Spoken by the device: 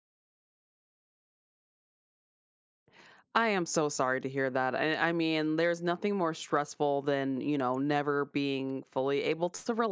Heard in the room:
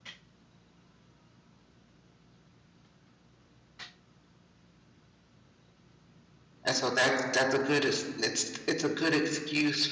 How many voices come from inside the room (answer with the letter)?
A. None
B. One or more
B